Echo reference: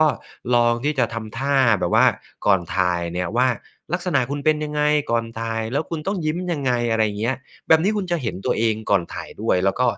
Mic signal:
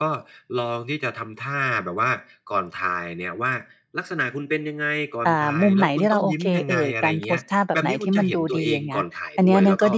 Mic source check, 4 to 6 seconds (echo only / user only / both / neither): both